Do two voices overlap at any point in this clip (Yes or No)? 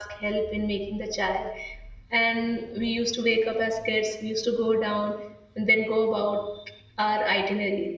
No